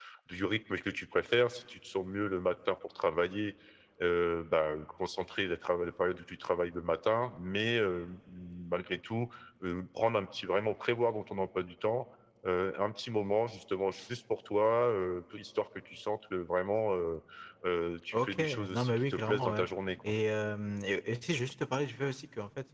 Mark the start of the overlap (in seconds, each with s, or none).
18.1 s